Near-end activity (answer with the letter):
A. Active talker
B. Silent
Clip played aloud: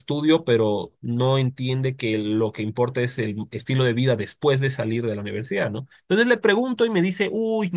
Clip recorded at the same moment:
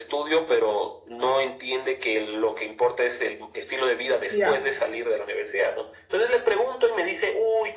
A